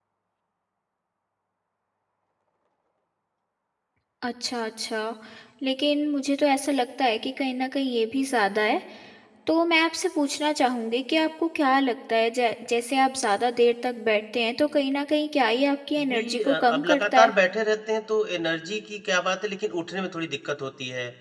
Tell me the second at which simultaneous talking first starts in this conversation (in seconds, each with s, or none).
16.0 s